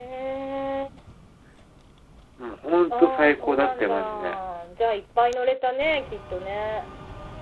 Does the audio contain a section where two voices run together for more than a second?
Yes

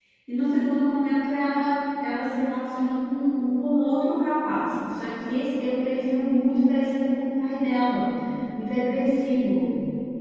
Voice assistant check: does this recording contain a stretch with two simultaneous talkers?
No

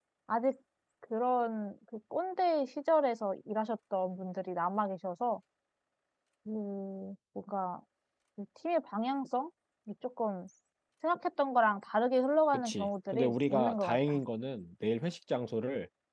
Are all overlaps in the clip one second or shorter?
No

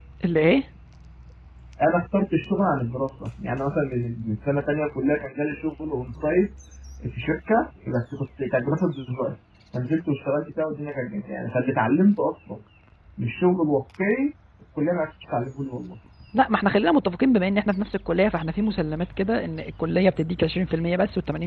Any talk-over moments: No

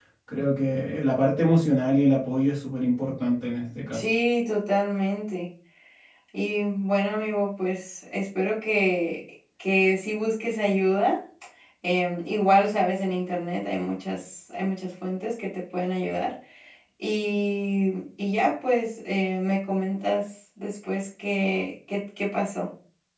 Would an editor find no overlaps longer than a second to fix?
Yes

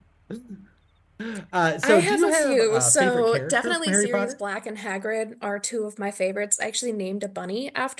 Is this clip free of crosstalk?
No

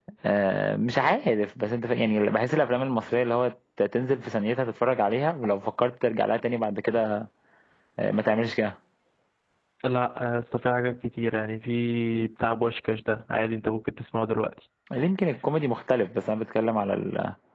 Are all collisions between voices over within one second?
Yes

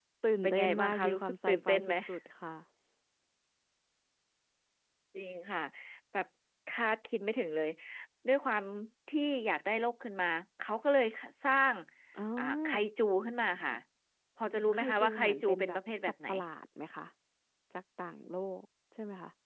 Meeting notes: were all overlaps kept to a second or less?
No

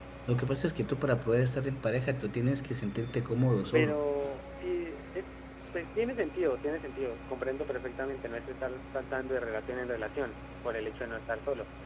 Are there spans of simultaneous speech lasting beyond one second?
No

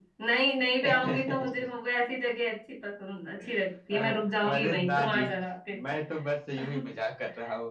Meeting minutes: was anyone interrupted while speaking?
Yes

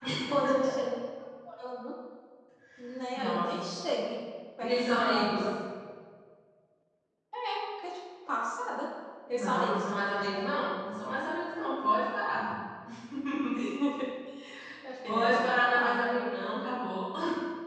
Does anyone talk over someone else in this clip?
Yes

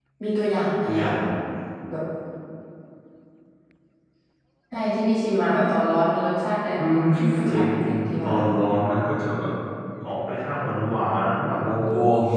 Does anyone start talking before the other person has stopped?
Yes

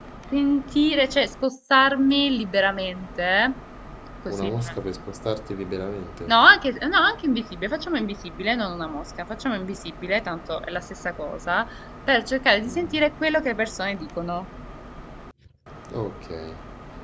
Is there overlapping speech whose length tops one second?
No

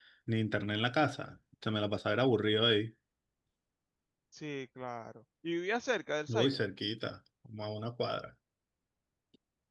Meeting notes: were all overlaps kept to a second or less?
Yes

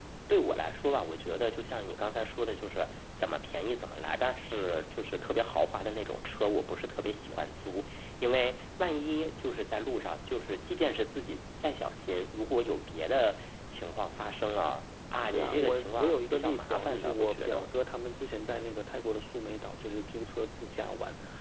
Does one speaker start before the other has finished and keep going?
Yes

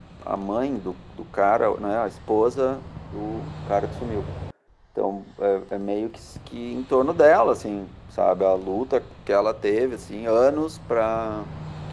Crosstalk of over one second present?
No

